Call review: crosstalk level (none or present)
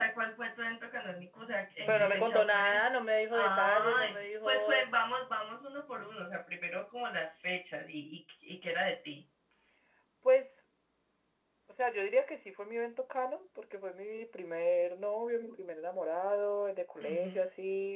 present